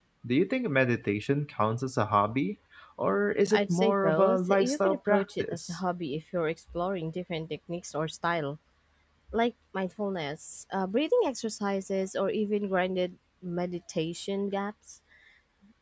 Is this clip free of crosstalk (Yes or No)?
No